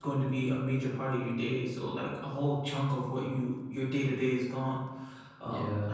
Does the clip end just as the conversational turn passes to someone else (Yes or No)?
No